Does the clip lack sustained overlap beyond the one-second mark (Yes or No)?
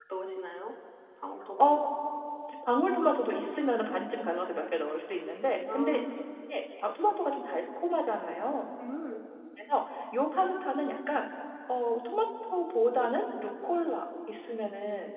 Yes